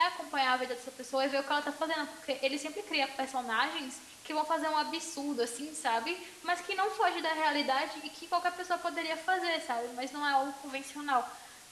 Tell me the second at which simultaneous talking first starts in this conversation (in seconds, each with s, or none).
none